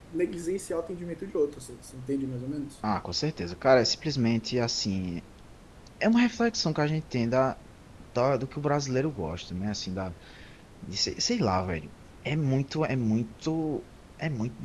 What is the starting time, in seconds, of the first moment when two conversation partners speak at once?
none

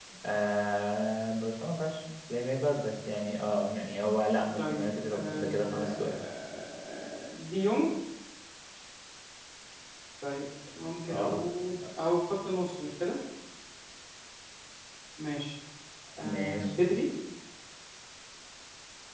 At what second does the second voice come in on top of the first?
4.6 s

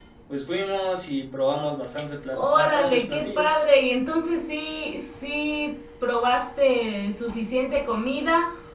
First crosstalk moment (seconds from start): 2.3 s

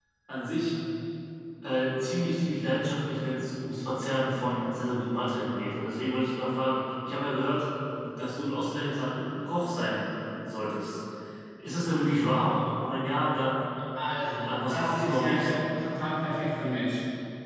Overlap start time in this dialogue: 14.4 s

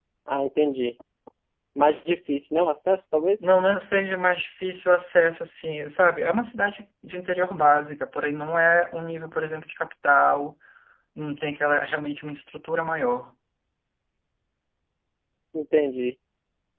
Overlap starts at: none

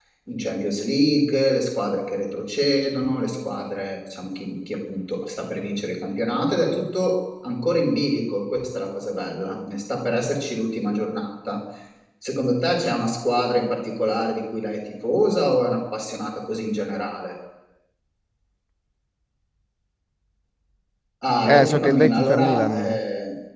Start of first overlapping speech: 21.4 s

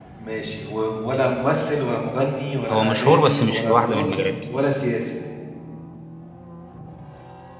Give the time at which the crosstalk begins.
2.7 s

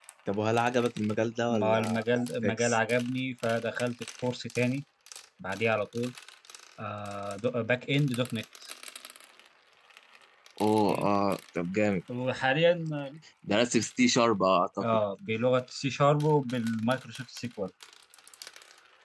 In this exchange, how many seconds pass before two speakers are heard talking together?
1.5 s

